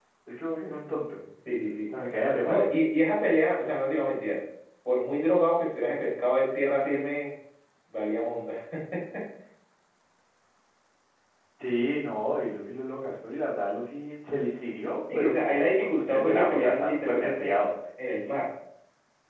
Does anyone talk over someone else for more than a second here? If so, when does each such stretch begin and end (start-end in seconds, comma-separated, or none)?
15.1-17.5